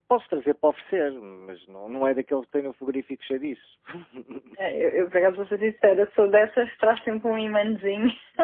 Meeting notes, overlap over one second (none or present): none